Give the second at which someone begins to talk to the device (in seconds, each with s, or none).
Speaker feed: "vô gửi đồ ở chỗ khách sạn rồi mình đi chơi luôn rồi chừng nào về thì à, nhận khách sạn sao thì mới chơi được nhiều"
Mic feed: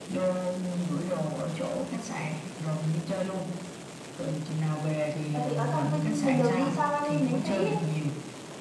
5.3 s